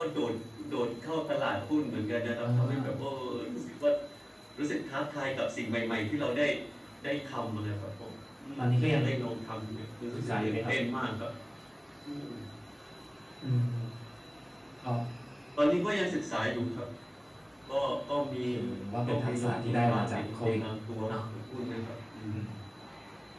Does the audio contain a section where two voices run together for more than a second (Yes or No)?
Yes